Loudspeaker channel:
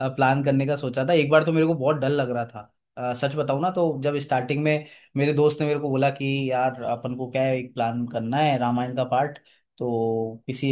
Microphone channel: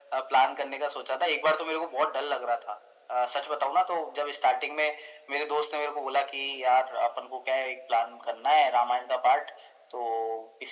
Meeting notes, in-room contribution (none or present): none